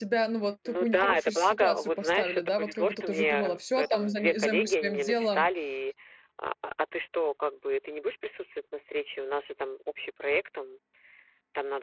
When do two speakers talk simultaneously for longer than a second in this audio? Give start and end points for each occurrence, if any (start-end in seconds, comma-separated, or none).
0.7-5.5